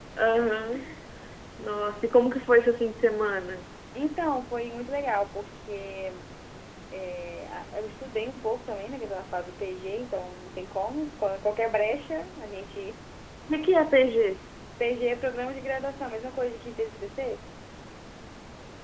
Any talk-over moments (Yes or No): No